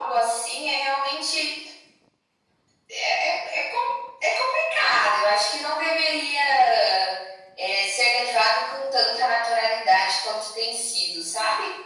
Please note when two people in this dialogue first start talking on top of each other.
none

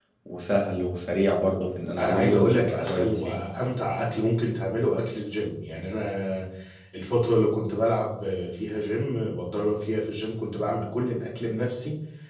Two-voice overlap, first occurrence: 2.0 s

